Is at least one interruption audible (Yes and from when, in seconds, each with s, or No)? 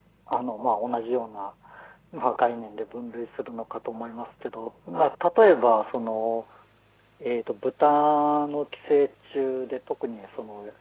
No